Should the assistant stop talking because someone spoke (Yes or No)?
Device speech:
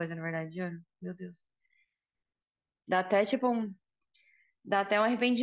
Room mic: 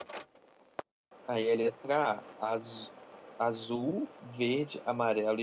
Yes